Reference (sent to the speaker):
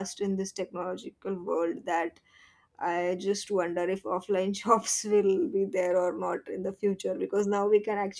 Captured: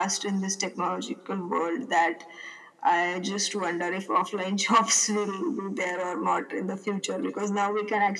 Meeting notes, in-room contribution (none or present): none